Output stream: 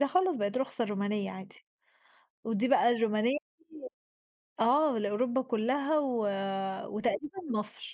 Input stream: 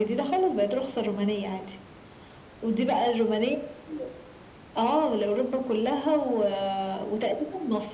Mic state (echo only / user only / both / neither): echo only